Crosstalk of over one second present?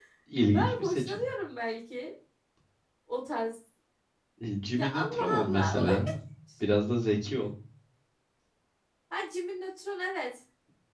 Yes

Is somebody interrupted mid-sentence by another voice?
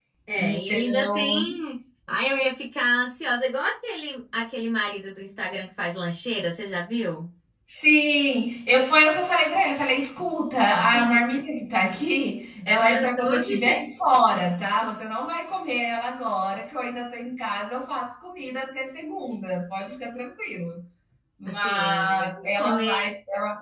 Yes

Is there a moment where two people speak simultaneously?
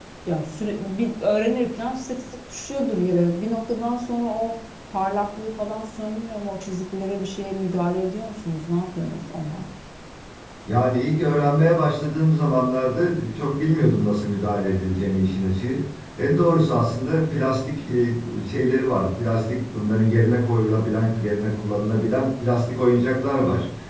No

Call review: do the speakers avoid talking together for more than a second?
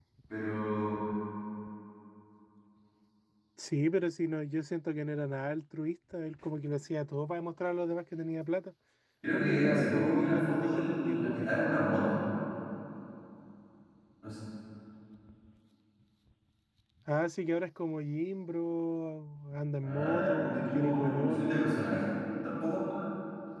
No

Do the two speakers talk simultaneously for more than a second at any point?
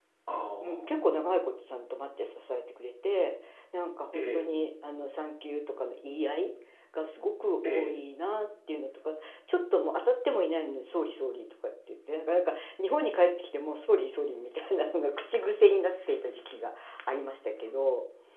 No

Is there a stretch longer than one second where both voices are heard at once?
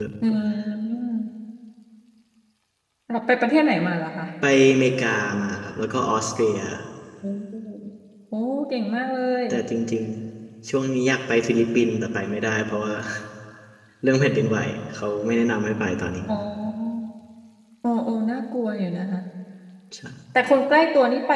No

